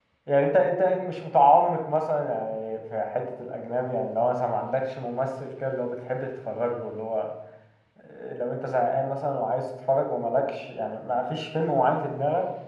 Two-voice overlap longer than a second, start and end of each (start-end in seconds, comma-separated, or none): none